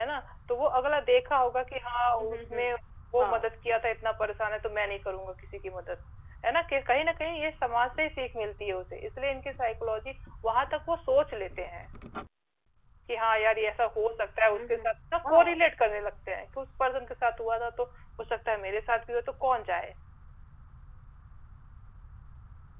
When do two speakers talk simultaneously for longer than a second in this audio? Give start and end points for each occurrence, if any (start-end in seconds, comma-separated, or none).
none